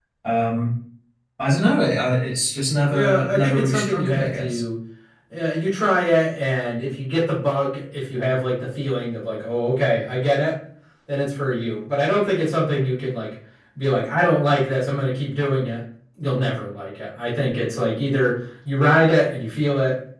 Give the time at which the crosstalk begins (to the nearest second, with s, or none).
3 s